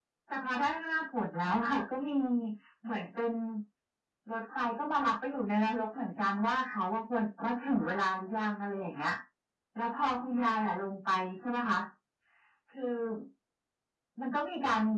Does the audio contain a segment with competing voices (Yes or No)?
No